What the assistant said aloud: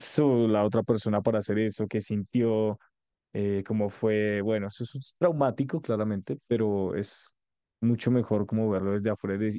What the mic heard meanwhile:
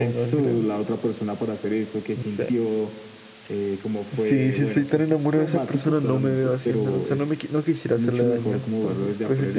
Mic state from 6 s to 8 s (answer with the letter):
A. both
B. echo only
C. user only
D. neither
A